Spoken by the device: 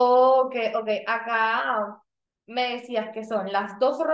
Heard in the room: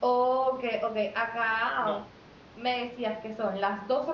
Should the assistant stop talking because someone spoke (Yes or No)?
Yes